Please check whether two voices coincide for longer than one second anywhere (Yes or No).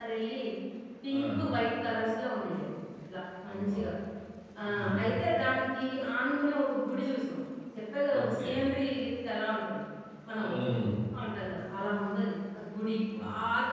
No